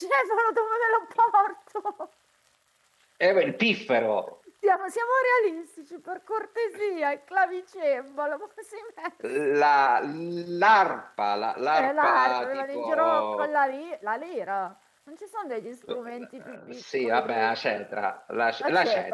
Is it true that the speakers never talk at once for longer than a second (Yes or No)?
No